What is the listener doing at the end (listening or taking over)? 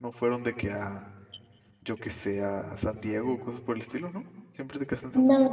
taking over